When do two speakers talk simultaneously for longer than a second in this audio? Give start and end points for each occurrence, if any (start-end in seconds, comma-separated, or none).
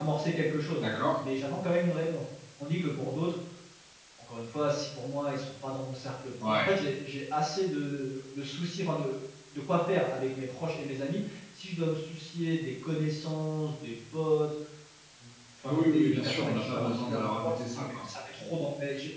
15.6-18.1